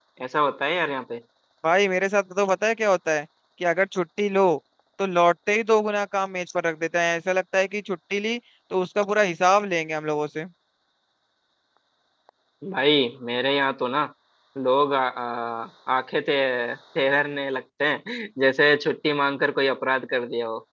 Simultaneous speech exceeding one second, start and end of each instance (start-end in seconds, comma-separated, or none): none